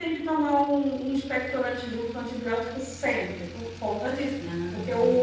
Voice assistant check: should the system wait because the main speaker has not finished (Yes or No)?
Yes